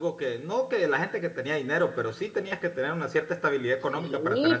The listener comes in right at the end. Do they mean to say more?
Yes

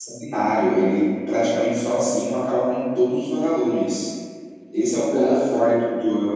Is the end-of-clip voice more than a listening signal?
No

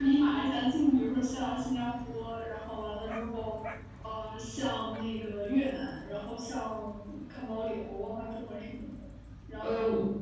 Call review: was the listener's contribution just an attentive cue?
No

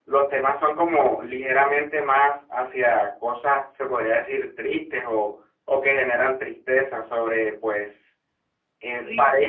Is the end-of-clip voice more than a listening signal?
No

